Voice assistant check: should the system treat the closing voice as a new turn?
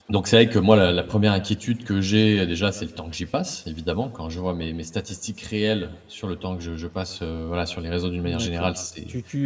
Yes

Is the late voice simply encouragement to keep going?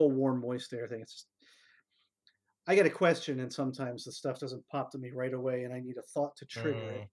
No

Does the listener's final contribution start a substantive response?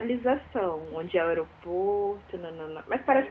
Yes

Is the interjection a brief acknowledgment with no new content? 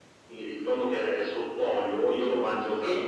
Yes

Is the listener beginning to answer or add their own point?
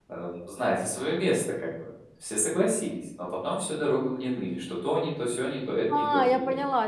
Yes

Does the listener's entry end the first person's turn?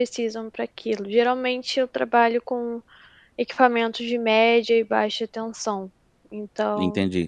Yes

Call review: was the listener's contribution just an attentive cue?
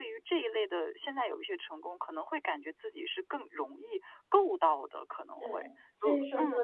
No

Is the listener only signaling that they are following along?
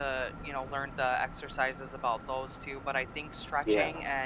Yes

